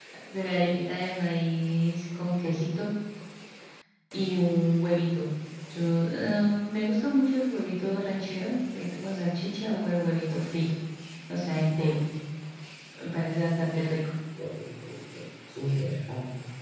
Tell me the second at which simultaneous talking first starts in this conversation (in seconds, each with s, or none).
none